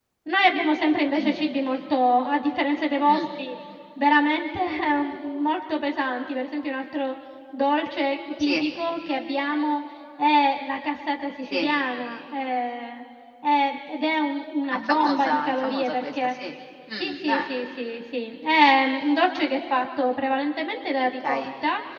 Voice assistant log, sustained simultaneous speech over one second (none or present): present